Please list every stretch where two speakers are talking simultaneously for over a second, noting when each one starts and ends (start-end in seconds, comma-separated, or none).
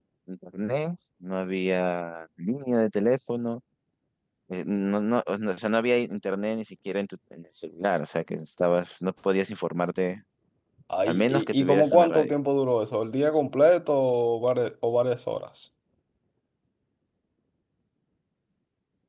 11.1-12.3